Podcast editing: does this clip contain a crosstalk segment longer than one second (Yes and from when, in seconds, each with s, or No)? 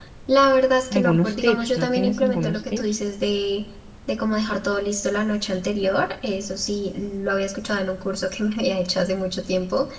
Yes, from 0.9 s